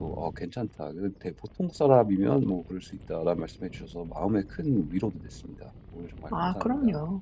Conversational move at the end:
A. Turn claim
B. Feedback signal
A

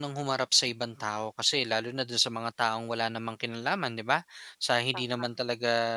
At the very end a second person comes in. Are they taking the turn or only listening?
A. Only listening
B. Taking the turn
A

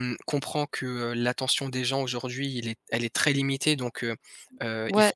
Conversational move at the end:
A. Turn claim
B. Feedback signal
B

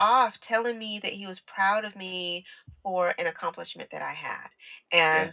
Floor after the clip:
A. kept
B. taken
A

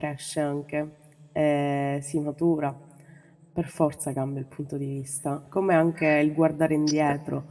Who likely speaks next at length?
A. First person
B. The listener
A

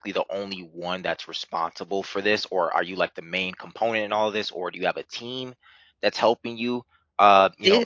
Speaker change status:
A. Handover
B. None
B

